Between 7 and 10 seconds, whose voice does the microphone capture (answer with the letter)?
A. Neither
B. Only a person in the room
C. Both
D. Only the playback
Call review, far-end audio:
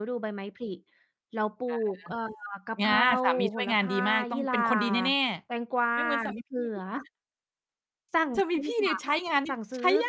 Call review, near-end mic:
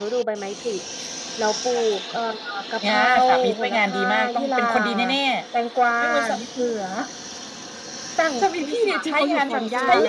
C